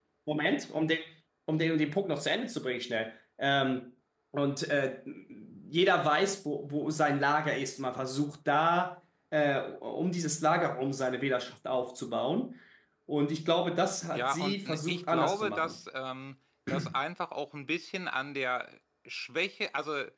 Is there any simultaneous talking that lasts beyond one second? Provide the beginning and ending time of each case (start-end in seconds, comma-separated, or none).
14.1-15.8